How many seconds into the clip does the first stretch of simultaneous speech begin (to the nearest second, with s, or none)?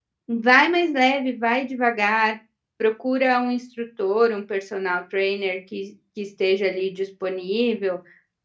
none